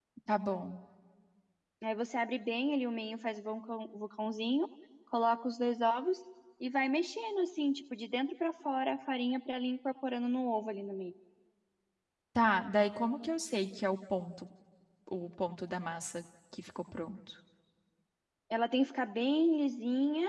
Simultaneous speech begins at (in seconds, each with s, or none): none